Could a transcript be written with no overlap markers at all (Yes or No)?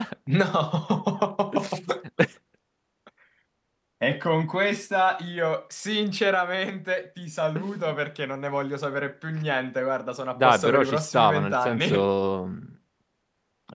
No